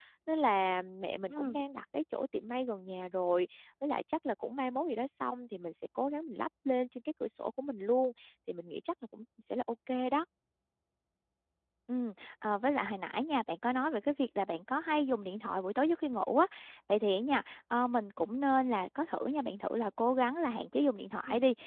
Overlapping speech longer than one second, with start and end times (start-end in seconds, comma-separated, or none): none